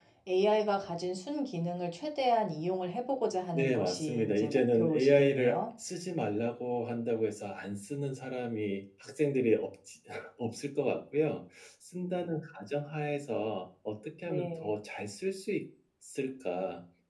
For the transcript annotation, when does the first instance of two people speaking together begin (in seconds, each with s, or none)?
3.5 s